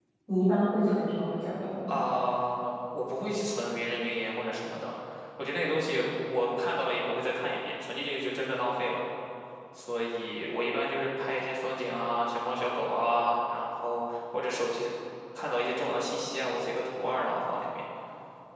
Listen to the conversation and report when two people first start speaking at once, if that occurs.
none

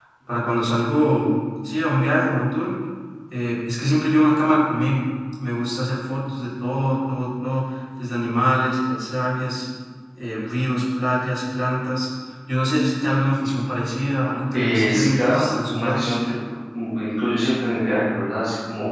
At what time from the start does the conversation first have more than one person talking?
14.5 s

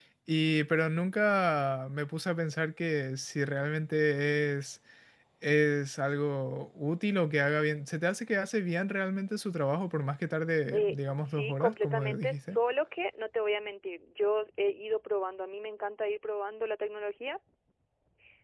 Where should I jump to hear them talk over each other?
10.7 s

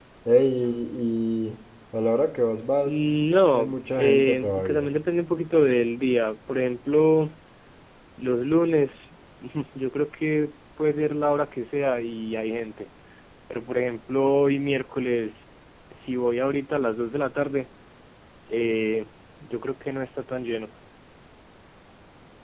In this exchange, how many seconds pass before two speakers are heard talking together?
3.5 s

